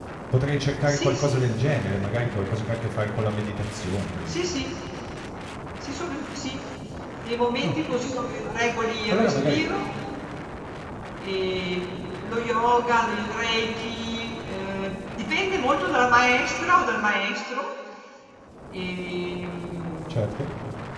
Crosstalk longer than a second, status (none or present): none